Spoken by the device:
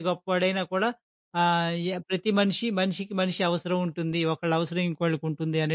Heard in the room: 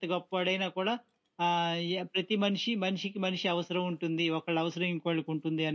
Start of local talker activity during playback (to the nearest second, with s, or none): none